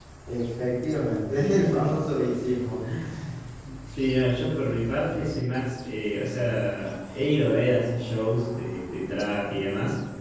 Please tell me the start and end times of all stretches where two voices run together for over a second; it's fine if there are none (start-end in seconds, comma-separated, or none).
none